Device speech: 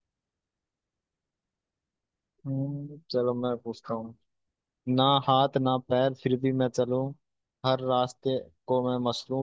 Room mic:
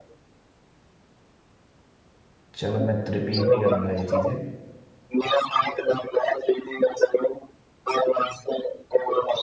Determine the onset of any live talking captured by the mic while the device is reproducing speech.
2.5 s

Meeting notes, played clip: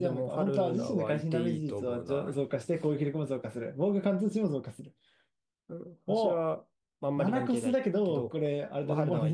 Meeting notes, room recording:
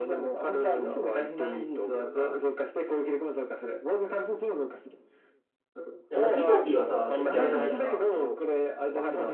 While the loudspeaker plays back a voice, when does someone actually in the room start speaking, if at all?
6.1 s

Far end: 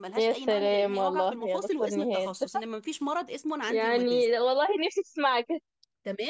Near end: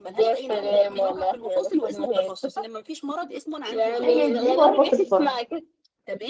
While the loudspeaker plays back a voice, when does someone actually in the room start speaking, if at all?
4.0 s

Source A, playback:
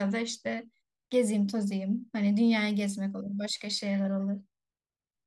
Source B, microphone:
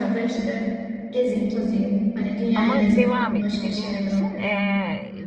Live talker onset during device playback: 2.5 s

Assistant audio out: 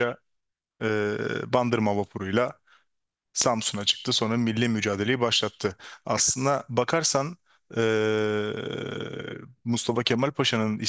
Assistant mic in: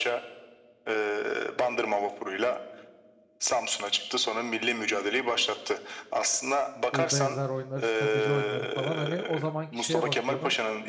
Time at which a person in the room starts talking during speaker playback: 6.9 s

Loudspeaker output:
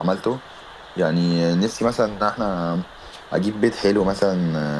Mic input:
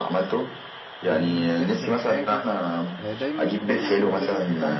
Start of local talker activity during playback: 1.0 s

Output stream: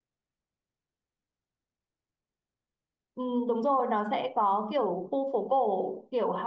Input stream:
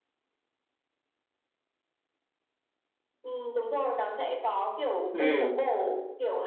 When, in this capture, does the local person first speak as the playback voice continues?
5.1 s

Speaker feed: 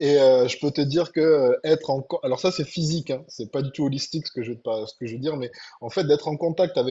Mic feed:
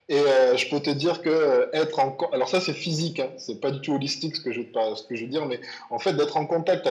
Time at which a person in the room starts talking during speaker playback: none

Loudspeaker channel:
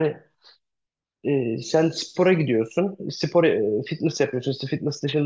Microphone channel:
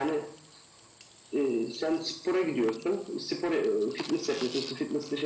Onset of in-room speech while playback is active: none

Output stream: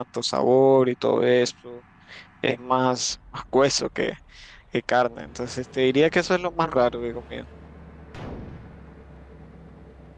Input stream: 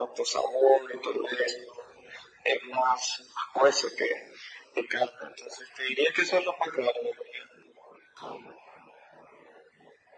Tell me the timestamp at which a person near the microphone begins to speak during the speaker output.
none

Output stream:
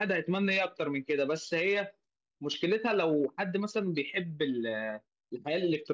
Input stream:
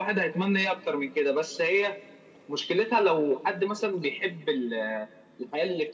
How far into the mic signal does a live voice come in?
none

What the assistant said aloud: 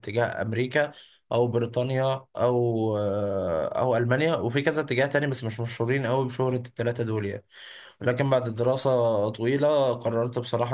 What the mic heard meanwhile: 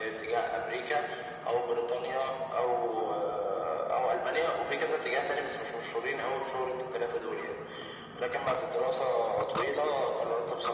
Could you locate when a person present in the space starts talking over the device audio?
none

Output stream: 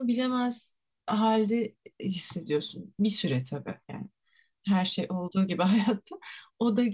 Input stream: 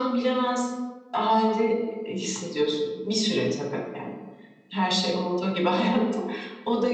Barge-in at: none

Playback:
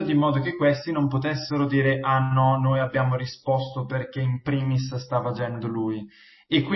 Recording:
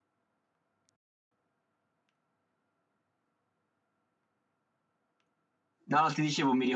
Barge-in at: 5.8 s

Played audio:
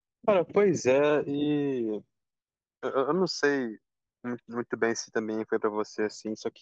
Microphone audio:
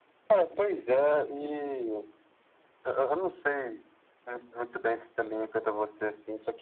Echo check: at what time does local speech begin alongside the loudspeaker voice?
none

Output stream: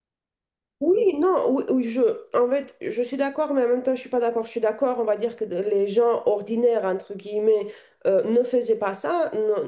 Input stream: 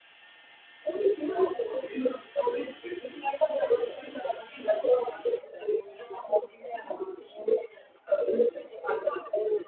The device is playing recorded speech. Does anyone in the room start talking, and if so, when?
none

